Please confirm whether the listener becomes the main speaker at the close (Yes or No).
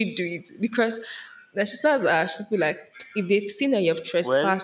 No